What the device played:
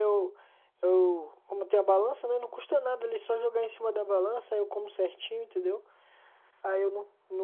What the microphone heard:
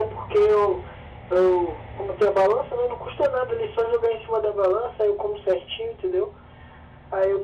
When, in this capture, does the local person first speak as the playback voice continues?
none

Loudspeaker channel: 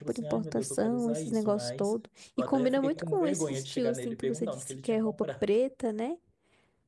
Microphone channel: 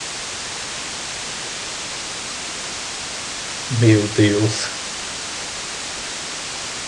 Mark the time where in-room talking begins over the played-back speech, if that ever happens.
4 s

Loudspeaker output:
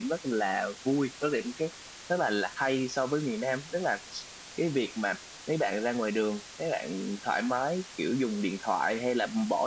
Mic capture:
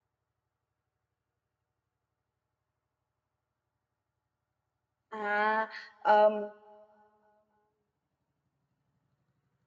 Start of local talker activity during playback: 5 s

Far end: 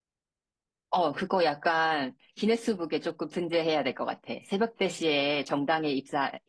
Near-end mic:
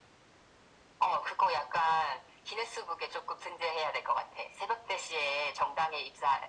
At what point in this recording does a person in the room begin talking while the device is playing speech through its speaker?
none

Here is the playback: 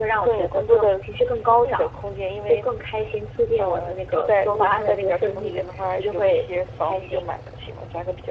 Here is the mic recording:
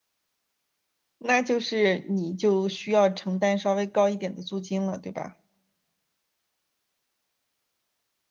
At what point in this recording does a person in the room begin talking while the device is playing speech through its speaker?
1 s

